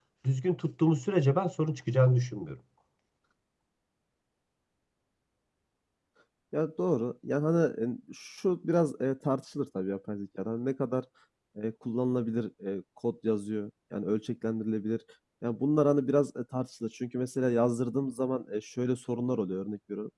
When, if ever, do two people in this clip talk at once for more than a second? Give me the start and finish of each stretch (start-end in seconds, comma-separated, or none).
none